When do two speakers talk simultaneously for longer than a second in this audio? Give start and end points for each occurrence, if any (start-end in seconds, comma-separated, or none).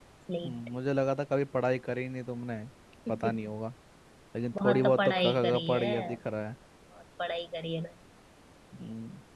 4.5-5.9